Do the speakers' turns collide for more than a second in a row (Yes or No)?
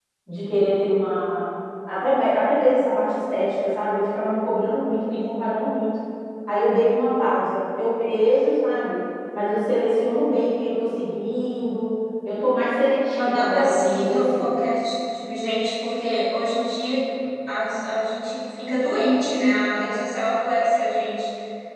Yes